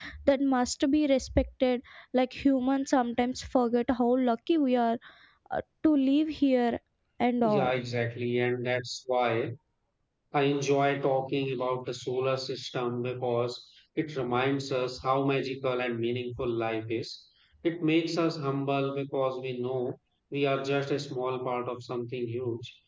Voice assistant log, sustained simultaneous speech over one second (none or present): none